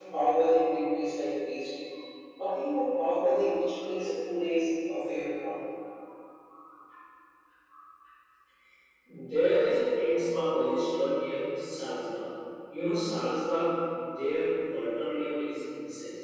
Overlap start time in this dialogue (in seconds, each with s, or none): none